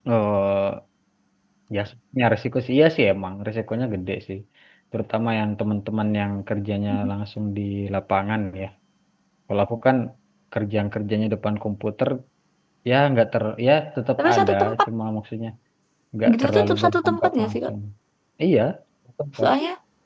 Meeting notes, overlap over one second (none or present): present